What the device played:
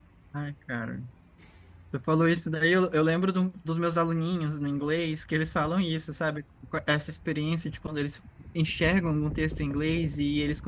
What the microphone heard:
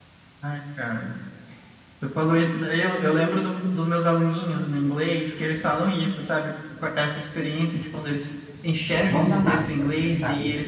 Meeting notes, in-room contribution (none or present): present